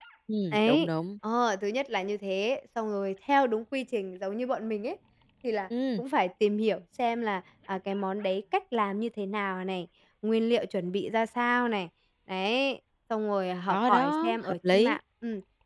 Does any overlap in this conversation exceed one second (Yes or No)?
Yes